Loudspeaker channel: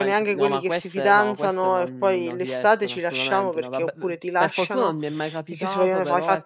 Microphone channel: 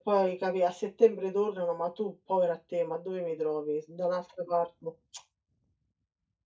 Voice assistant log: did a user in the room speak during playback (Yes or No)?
Yes